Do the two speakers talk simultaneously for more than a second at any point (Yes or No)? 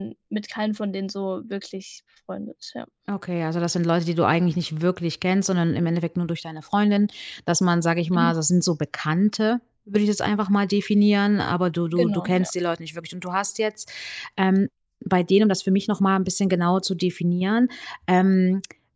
No